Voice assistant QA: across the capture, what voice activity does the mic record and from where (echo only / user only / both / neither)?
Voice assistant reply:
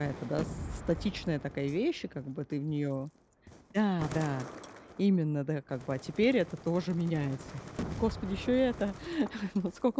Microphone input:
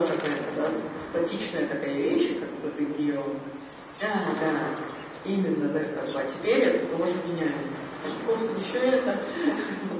echo only